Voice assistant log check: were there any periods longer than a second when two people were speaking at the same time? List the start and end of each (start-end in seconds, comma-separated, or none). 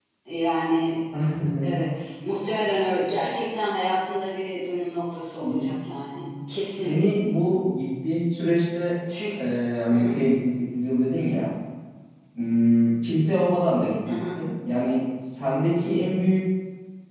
none